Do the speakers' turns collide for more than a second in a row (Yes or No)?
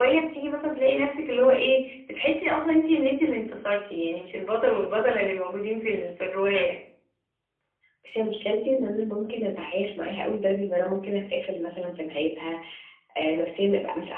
No